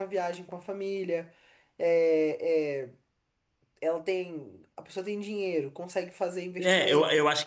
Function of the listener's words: taking over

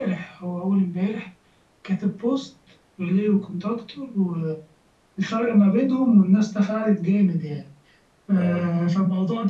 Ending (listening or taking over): listening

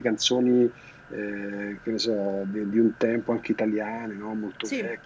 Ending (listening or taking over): listening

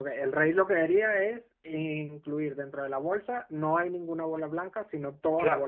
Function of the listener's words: taking over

